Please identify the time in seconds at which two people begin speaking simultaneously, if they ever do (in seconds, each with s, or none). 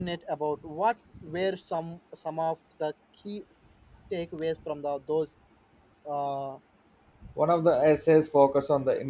none